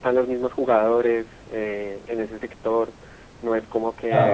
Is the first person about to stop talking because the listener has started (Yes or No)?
Yes